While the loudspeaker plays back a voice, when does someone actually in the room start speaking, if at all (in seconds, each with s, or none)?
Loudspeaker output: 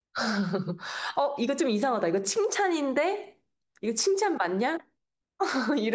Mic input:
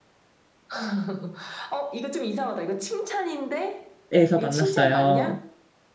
4.1 s